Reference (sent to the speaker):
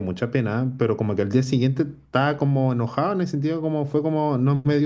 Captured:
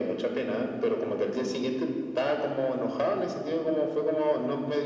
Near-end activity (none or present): none